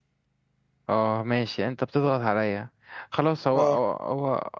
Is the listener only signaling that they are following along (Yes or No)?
Yes